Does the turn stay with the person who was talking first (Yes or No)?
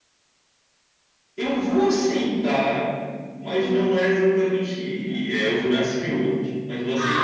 No